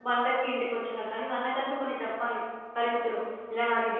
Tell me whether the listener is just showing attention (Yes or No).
Yes